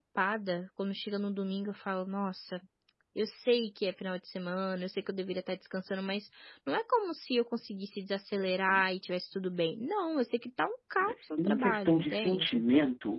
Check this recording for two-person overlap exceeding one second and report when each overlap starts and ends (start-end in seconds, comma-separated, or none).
11.0-12.6